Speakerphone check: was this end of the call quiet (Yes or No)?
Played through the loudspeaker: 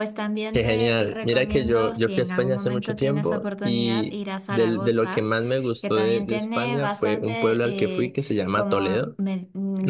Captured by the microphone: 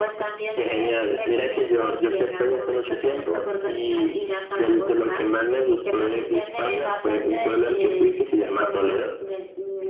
Yes